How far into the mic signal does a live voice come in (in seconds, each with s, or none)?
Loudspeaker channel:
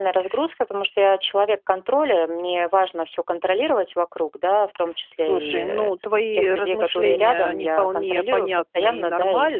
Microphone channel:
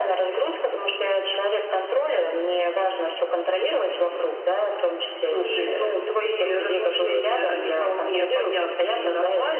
none